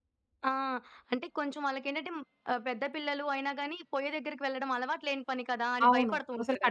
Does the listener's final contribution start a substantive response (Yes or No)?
Yes